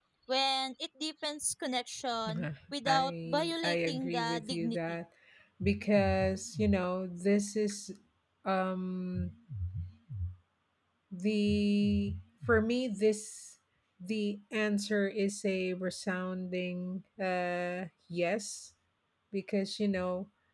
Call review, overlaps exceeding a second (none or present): present